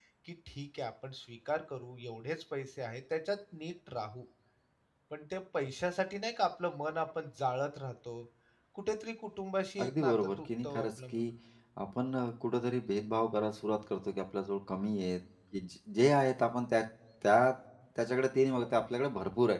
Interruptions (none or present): present